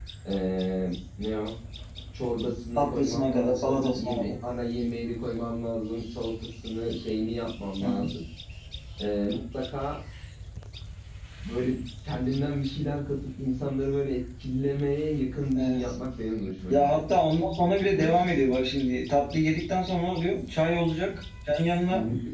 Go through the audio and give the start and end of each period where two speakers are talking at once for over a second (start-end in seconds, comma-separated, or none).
2.8-4.3